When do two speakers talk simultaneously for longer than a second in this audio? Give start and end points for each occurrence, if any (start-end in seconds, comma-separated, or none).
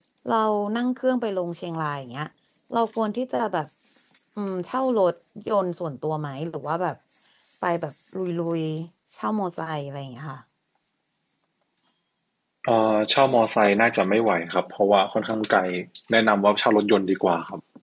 none